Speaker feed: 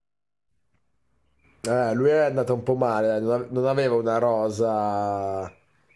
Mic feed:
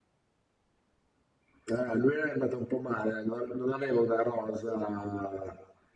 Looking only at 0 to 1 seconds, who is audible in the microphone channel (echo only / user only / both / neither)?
neither